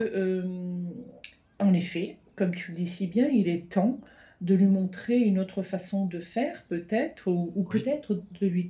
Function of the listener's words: listening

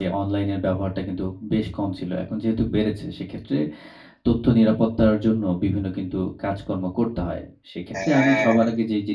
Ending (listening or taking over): listening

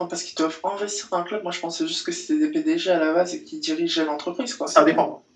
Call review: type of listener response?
taking over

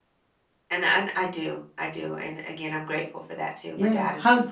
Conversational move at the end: taking over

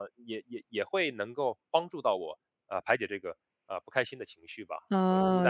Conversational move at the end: taking over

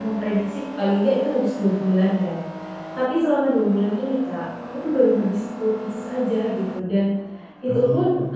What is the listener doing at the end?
listening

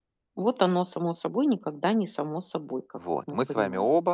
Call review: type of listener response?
taking over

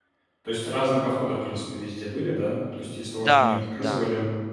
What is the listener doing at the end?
listening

